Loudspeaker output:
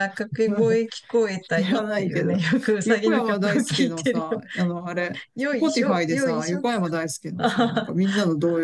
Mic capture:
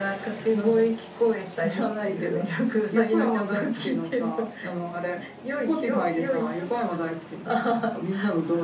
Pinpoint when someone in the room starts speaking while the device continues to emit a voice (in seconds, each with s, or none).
none